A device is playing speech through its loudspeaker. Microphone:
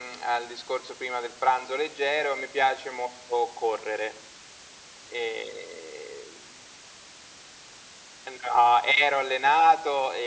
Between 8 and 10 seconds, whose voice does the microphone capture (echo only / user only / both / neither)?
echo only